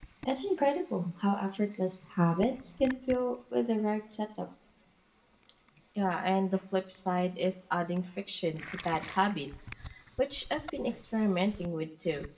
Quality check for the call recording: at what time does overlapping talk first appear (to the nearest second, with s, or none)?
none